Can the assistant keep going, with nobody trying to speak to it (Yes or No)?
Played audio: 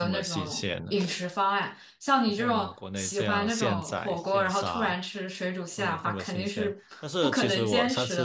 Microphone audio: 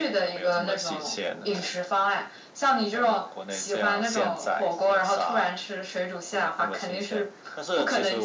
Yes